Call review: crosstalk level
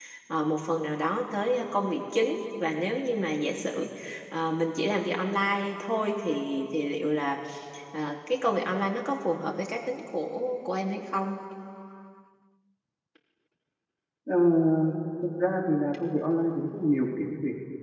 none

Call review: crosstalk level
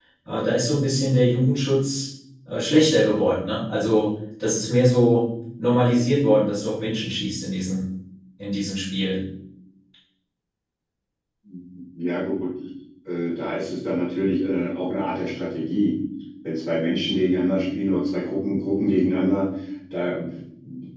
none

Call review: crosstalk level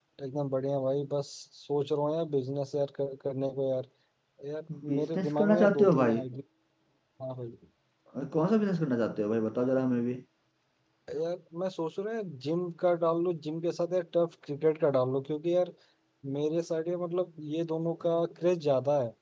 present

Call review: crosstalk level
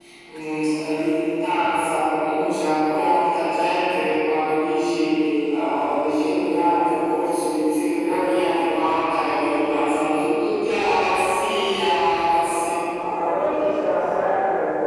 none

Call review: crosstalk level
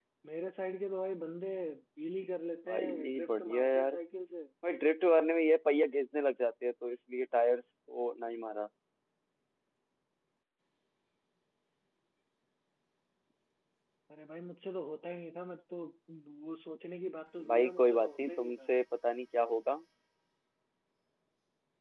present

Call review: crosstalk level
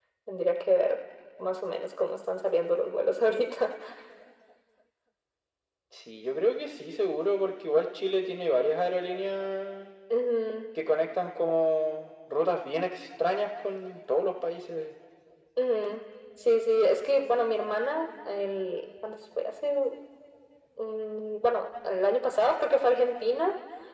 none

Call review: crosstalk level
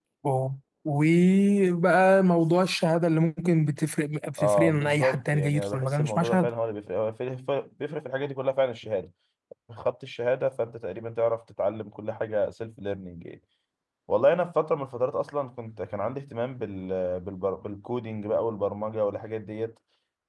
present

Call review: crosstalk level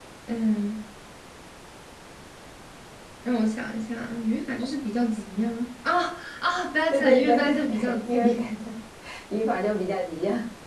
present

